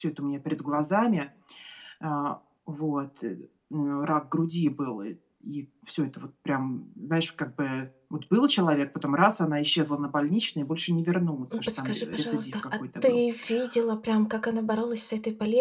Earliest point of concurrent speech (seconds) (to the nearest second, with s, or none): 12 s